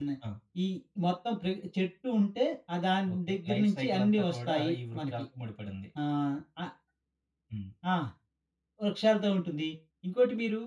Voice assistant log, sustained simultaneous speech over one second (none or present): present